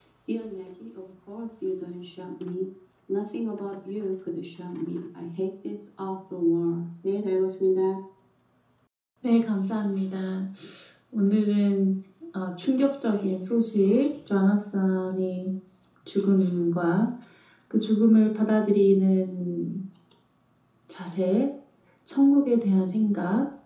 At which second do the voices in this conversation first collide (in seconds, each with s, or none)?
none